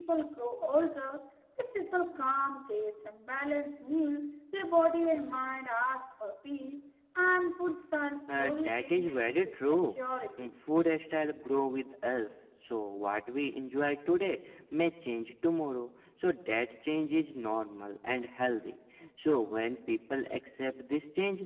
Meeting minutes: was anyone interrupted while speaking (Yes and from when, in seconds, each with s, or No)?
Yes, from 8.3 s